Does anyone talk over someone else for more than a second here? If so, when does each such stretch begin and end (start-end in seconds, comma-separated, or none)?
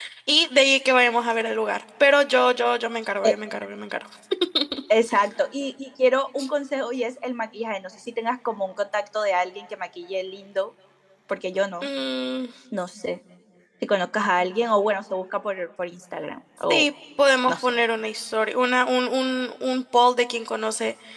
none